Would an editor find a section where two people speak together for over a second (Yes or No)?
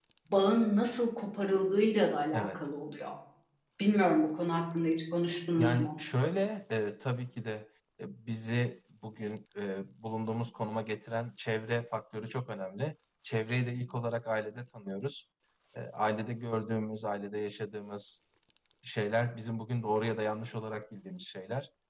No